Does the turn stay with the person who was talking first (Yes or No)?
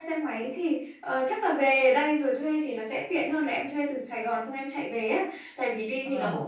Yes